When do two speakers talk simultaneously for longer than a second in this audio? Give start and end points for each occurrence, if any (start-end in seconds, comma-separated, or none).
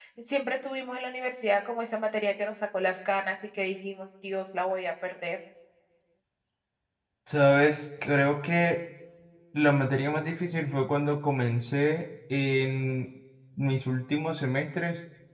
none